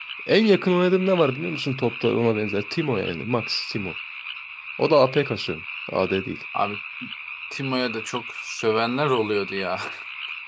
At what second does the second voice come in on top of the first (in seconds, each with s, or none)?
none